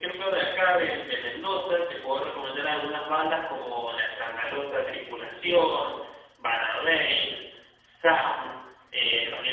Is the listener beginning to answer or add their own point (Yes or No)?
No